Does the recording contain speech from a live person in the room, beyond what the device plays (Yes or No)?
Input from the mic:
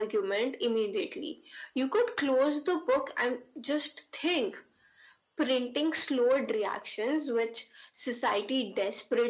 No